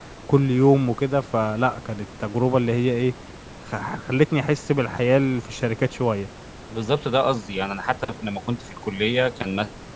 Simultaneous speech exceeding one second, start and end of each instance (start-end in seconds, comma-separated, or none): none